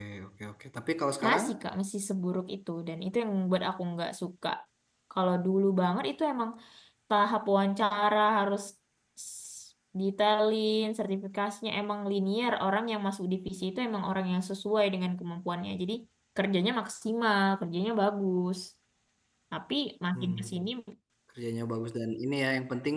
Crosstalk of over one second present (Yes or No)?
No